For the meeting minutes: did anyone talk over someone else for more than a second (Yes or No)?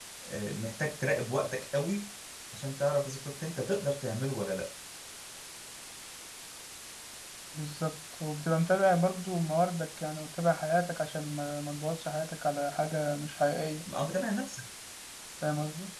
No